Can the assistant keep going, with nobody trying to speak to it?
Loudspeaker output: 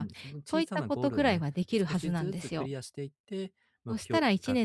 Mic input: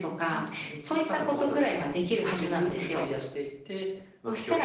Yes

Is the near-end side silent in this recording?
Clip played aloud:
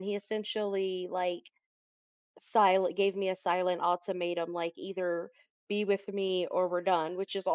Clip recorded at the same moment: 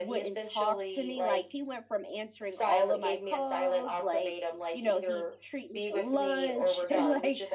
No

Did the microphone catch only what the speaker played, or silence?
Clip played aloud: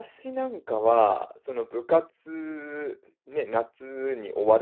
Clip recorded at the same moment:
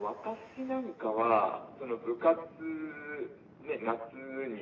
Yes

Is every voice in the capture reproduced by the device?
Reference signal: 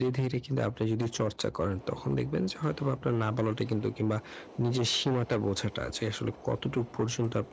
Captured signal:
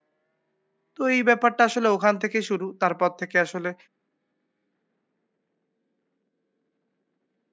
No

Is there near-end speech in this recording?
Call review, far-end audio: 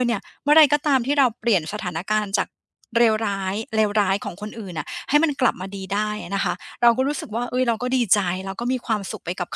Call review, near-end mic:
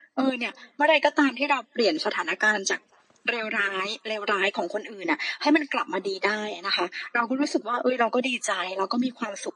No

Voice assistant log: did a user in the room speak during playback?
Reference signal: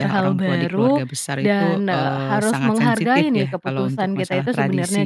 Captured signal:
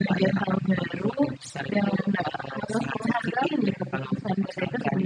No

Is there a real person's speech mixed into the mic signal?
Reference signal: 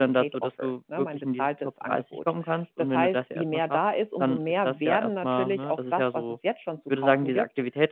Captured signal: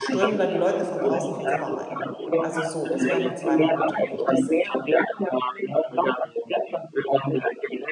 Yes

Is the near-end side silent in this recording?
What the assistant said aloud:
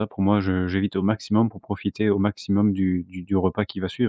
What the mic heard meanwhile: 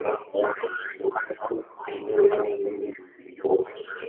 Yes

